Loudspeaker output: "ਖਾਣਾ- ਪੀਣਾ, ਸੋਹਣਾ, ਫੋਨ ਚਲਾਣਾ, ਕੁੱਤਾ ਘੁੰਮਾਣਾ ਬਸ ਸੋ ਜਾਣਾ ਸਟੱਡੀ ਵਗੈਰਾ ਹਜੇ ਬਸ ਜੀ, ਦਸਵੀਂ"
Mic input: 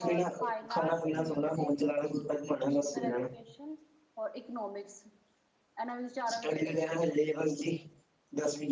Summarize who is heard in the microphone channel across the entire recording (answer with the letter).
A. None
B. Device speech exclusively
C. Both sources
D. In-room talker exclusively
C